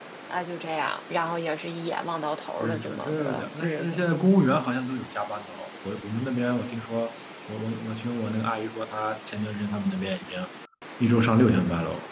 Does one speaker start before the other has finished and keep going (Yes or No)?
Yes